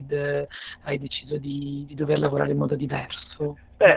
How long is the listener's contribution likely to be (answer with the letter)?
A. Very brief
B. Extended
B